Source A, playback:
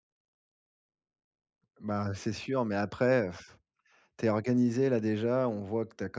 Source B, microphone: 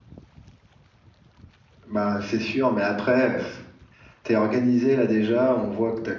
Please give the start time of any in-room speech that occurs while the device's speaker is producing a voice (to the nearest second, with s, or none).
none